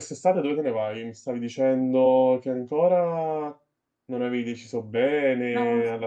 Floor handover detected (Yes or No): No